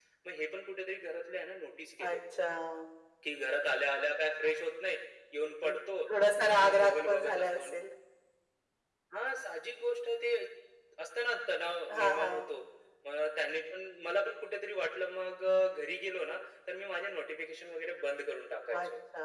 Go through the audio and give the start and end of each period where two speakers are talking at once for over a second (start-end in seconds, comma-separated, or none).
6.4-7.6